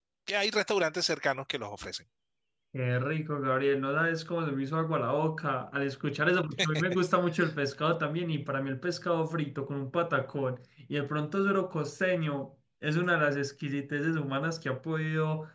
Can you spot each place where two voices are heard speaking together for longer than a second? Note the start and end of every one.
none

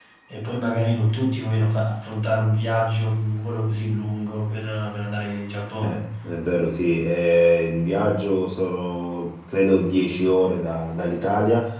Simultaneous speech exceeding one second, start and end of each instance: none

